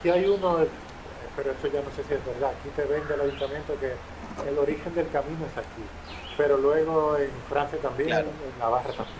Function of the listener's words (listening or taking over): listening